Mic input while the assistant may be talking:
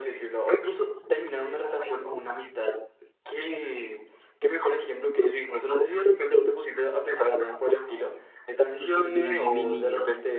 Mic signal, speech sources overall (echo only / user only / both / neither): both